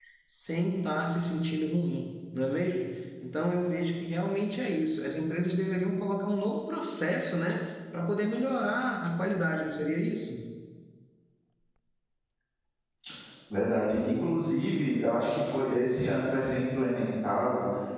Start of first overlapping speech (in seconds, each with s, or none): none